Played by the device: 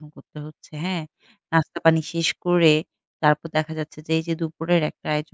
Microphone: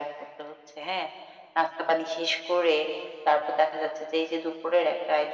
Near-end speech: none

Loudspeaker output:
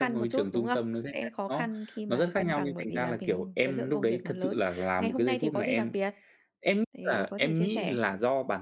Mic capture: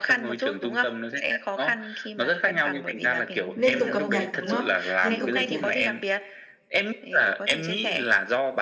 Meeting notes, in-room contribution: present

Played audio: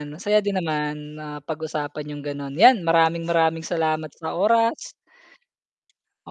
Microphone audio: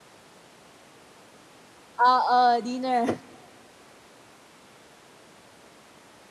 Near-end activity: present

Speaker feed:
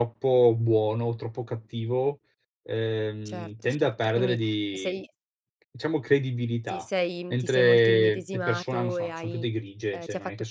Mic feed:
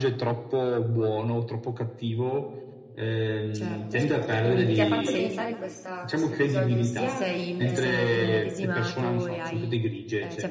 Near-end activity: present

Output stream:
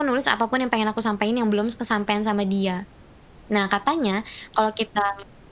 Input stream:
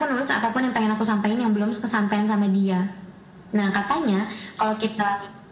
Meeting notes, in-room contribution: none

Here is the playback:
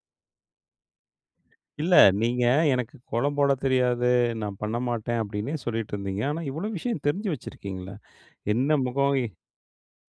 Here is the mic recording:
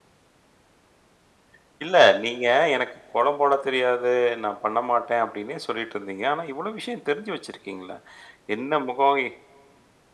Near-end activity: none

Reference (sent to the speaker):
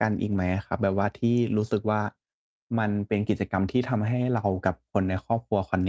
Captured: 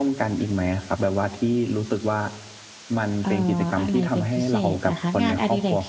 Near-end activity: present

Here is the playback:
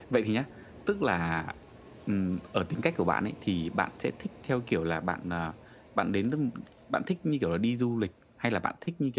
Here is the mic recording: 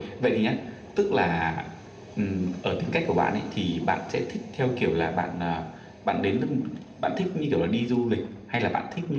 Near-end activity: none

